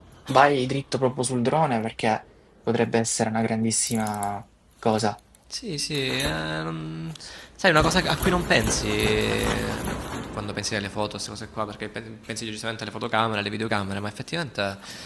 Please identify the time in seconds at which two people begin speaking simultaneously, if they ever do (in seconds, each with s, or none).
none